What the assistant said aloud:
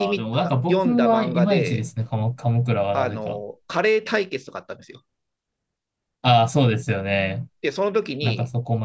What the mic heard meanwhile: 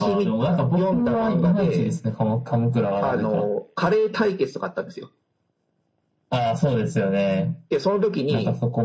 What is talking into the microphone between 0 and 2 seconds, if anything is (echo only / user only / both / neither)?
echo only